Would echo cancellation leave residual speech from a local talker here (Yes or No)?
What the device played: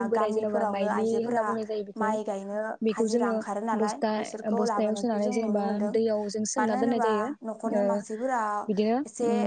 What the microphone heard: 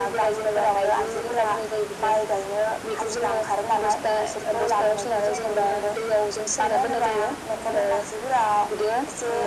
No